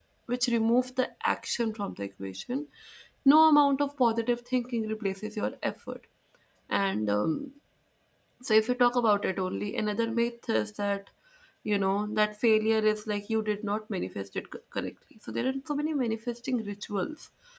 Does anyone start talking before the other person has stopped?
No

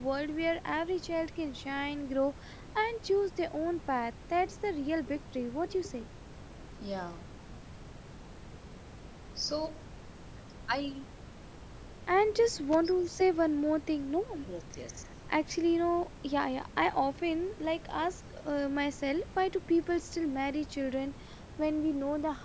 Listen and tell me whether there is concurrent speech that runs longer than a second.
No

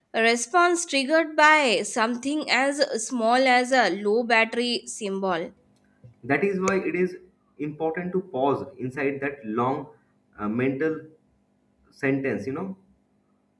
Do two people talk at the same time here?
No

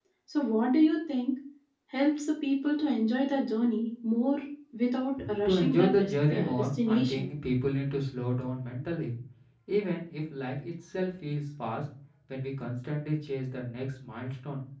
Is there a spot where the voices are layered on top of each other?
Yes, from 5.5 s

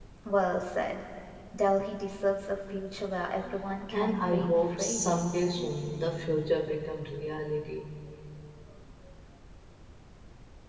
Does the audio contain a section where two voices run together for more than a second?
Yes, from 3.9 s

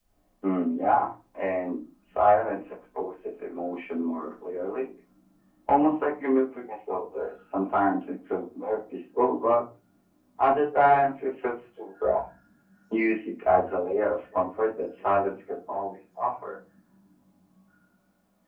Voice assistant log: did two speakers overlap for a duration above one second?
No

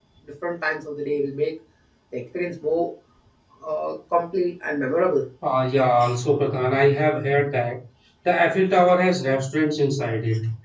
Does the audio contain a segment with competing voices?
No

